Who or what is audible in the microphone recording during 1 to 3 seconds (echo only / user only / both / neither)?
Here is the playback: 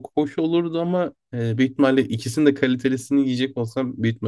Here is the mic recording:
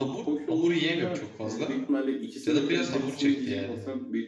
both